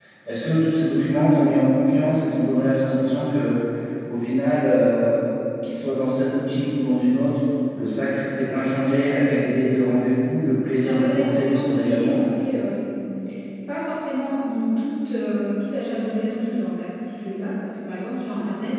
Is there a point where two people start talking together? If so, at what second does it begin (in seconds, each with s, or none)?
10.8 s